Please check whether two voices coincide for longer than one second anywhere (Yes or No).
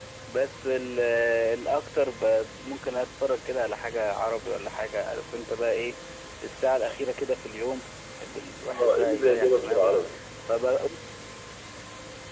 Yes